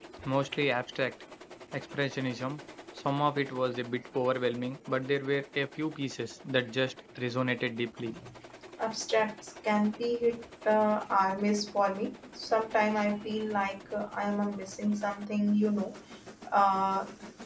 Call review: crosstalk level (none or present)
none